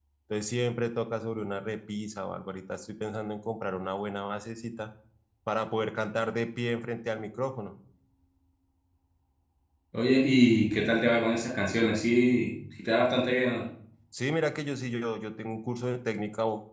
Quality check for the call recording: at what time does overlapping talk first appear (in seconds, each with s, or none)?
none